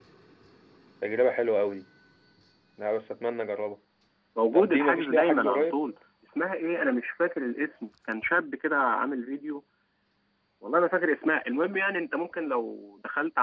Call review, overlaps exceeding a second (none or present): present